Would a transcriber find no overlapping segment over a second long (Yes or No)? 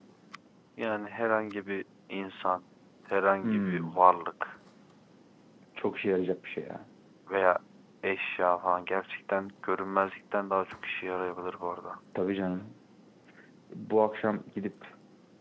Yes